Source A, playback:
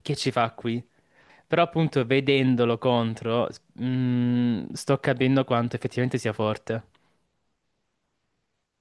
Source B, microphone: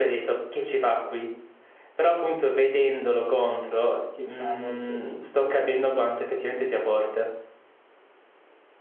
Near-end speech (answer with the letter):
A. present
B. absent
A